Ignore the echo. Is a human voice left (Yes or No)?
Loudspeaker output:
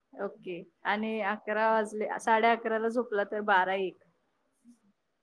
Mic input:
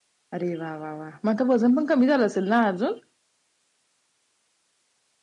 Yes